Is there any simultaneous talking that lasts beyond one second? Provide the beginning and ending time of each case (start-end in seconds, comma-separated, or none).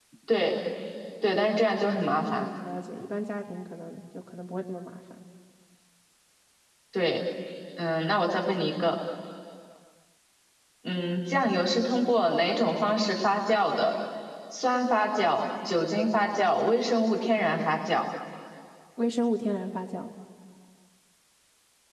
none